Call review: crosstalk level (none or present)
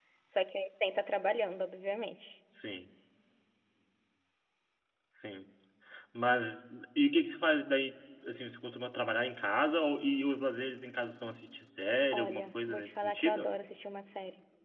present